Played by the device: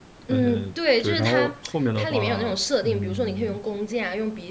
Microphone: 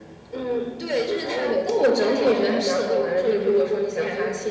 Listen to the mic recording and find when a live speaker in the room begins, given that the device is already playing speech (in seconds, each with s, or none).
1.4 s